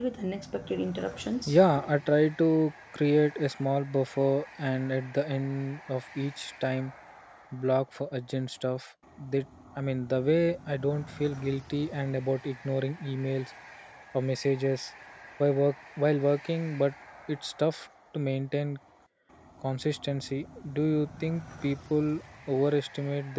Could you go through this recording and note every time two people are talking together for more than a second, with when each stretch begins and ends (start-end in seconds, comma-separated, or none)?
none